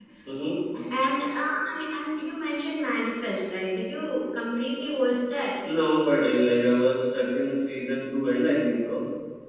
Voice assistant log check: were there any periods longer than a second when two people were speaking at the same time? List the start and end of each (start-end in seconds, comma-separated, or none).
none